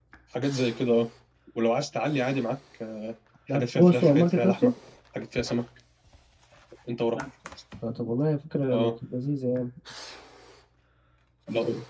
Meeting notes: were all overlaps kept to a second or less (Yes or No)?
No